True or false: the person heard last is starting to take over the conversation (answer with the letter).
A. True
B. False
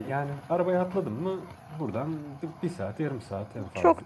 A